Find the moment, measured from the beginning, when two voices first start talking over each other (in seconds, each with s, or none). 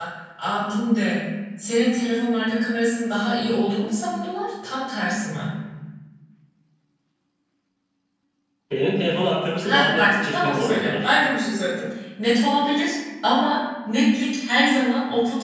9.6 s